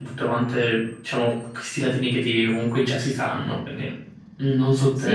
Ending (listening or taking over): taking over